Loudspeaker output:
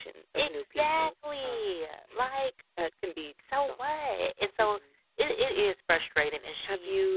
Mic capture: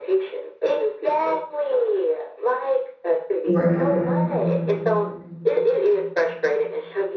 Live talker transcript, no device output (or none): Right.